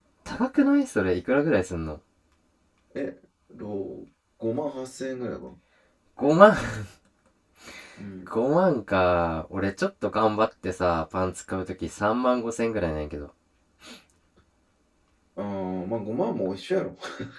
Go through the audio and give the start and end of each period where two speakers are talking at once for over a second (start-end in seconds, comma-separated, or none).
none